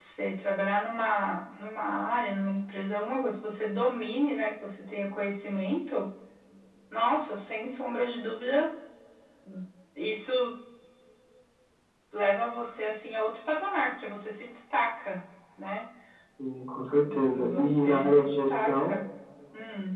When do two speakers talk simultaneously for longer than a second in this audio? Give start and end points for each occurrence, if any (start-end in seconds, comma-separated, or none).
17.3-18.9